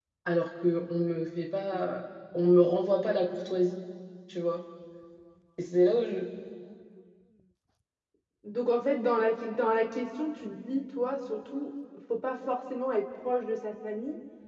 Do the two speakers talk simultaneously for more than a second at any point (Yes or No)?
No